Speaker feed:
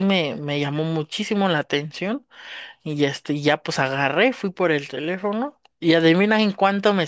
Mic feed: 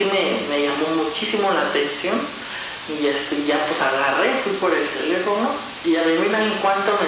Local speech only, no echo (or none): none